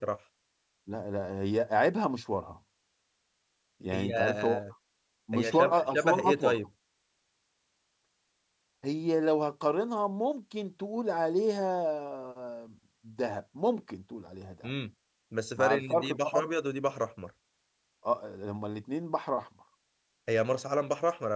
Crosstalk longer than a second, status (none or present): present